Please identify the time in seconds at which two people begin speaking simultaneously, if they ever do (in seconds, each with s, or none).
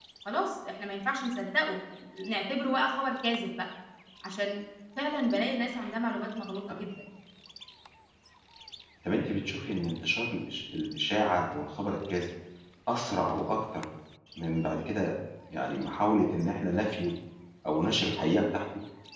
none